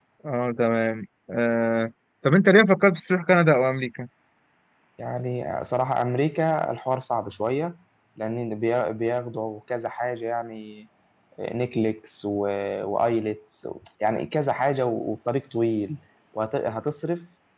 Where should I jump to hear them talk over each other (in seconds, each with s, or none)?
none